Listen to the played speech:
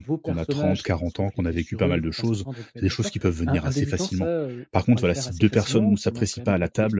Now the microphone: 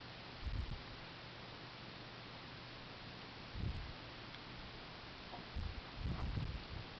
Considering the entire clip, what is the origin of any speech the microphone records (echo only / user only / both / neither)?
neither